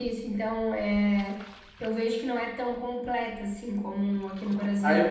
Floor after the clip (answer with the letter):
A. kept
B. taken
B